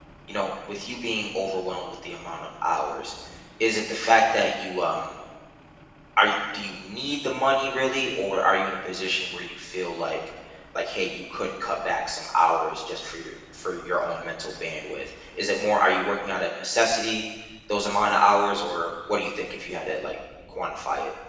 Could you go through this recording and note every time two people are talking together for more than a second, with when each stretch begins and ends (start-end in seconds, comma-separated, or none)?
none